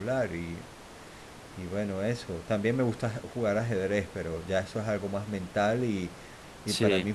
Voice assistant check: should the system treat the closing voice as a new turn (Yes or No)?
No